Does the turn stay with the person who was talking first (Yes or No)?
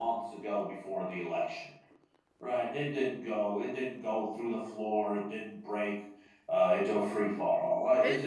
No